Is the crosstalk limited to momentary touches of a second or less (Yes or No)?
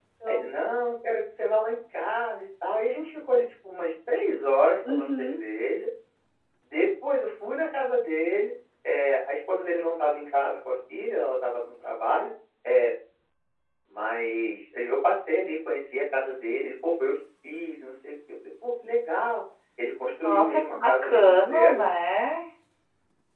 No